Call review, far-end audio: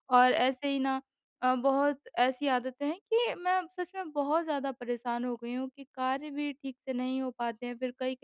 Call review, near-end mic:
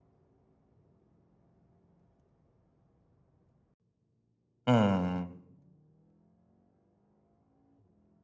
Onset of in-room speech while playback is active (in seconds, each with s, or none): 4.7 s